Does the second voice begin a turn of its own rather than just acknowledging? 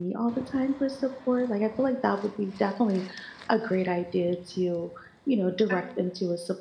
No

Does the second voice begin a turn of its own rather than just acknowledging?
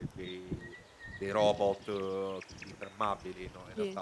No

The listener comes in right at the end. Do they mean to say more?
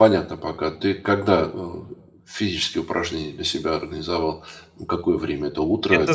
Yes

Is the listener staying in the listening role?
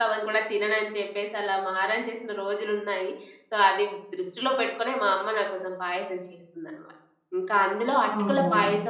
Yes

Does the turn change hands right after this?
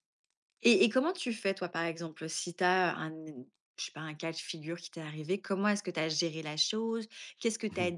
No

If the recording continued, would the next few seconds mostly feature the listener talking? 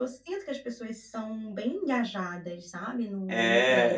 Yes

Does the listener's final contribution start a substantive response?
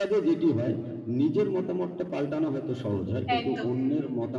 No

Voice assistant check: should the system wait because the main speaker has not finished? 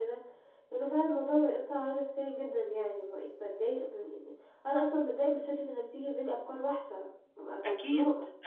No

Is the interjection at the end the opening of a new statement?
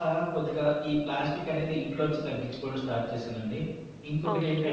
Yes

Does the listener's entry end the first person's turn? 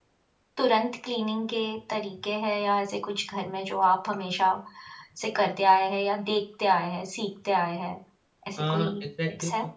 Yes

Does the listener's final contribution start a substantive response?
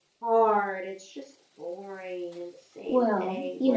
Yes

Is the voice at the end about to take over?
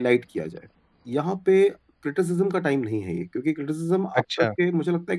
No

